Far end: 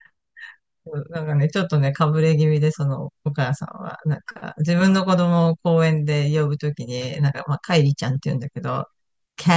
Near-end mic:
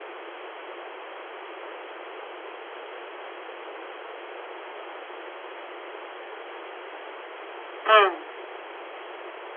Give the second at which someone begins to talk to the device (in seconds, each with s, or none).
7.8 s